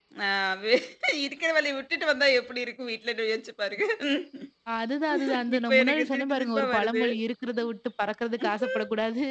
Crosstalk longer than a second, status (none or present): present